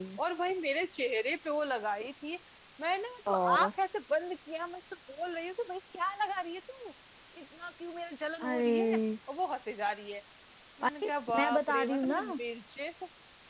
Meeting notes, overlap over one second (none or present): present